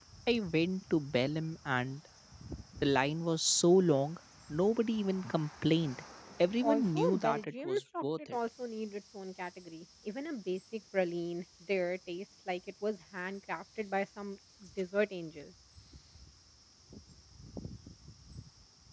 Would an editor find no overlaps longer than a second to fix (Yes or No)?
No